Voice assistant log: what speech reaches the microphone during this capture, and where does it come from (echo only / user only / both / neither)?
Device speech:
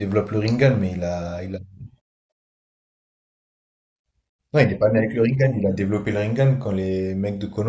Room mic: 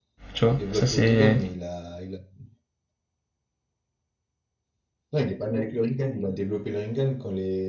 both